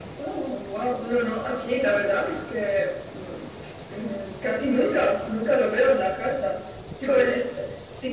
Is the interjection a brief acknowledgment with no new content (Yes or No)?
Yes